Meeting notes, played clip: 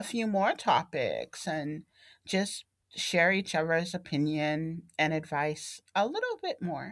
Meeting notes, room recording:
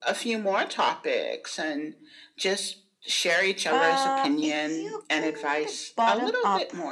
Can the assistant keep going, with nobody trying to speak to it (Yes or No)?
No